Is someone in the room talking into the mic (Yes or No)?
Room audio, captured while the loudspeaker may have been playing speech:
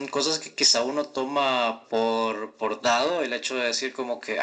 No